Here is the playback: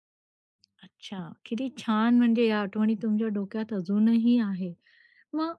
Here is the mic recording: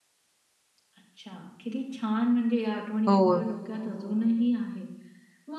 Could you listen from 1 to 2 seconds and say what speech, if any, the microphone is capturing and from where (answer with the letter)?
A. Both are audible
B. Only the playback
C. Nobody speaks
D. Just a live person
B